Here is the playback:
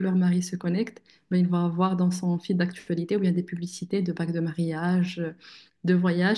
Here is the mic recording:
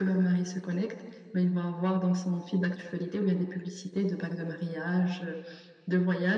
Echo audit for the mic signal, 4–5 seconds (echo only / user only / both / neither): echo only